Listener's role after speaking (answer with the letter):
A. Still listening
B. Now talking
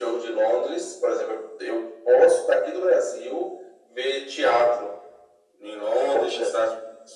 A